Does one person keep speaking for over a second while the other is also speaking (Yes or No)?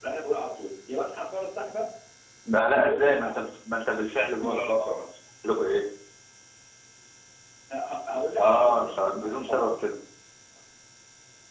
Yes